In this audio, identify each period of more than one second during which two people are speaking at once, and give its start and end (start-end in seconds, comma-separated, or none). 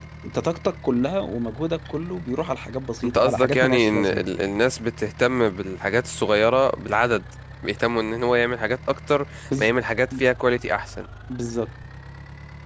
3.0-4.2